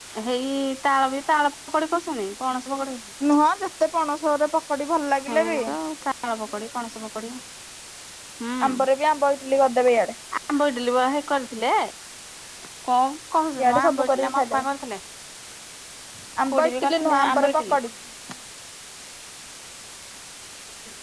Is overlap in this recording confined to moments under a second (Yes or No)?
No